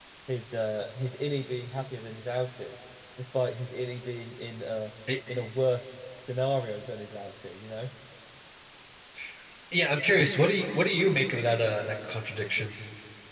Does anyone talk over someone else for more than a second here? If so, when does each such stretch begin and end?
none

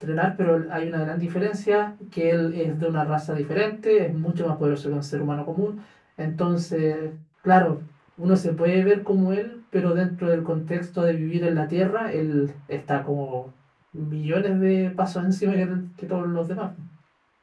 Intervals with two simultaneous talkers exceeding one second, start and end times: none

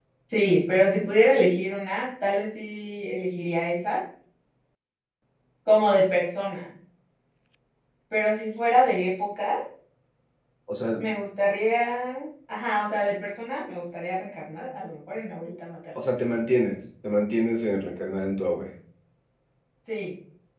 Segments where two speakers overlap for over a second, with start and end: none

